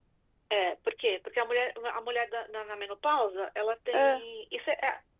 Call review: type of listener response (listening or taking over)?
listening